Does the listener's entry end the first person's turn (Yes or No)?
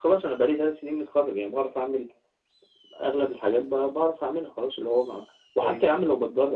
No